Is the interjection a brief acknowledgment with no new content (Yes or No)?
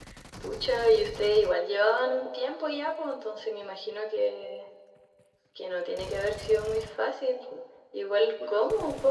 Yes